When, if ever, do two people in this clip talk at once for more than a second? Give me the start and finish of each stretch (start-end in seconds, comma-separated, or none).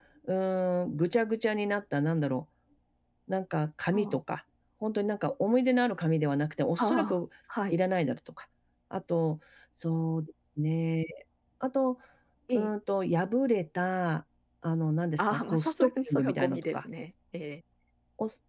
15.2-16.8